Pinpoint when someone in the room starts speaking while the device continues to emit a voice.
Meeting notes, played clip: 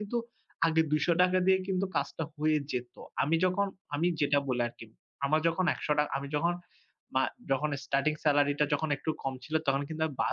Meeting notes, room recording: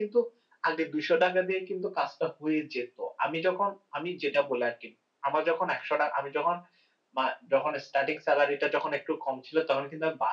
none

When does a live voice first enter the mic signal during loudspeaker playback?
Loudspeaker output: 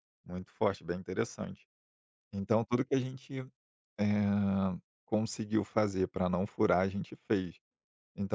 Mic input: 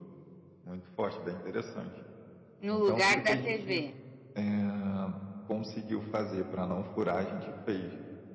3 s

